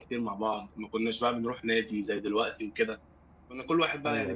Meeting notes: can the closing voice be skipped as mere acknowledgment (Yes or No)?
Yes